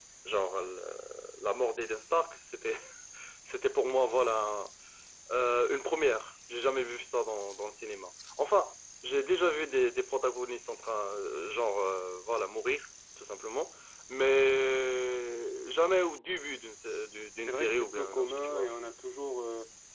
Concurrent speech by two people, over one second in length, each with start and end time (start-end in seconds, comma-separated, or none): 17.3-18.7